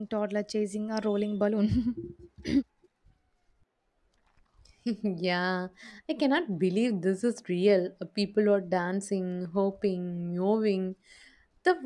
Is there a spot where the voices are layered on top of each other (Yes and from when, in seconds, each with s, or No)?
No